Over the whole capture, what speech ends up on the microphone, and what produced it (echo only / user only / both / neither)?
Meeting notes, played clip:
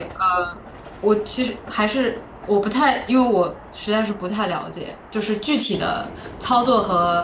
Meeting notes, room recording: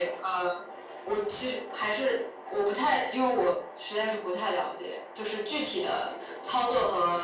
echo only